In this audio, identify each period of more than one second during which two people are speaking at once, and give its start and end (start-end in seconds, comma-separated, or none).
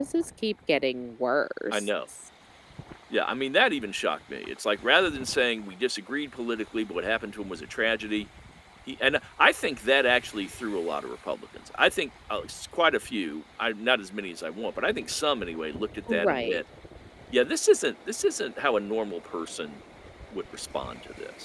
none